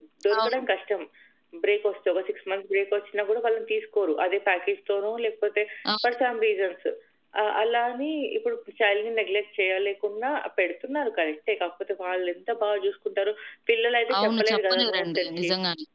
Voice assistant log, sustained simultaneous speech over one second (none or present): present